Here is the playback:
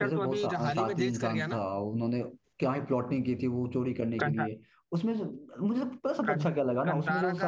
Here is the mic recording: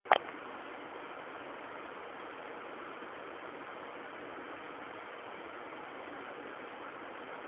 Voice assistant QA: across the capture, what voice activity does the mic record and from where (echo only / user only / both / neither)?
neither